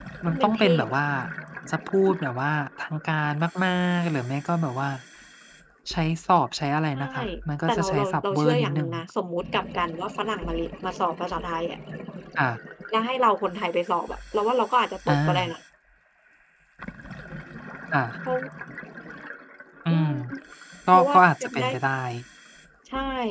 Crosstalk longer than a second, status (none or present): present